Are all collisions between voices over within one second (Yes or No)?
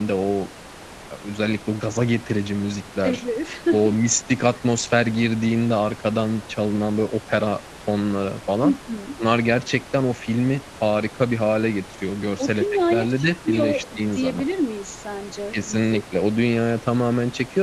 No